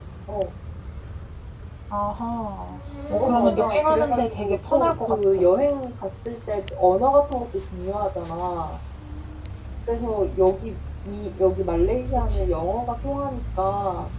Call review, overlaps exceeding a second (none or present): present